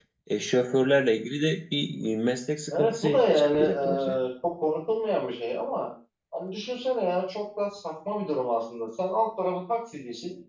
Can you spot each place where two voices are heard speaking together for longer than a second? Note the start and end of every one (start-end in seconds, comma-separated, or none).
2.7-4.2